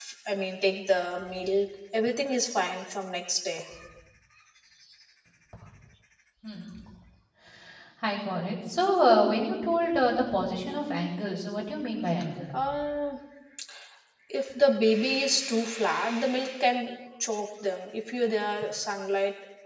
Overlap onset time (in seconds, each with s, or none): none